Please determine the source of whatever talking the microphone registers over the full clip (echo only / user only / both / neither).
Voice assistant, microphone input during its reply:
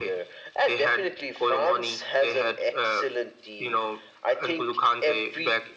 echo only